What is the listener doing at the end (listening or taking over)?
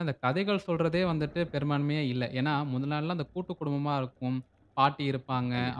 listening